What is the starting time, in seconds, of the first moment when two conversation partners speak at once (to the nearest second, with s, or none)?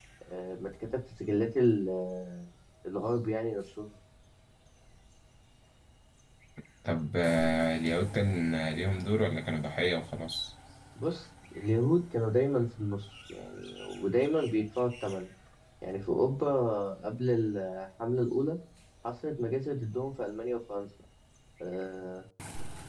none